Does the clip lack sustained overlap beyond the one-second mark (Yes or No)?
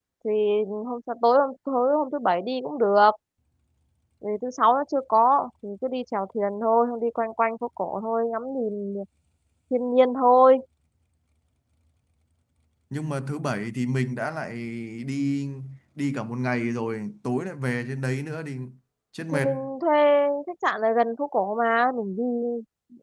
Yes